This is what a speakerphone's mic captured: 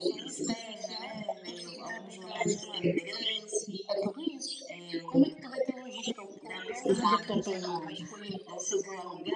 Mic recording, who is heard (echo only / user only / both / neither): both